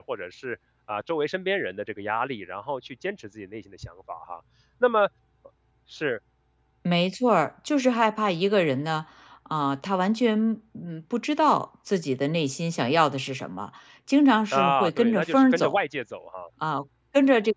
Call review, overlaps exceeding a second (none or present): present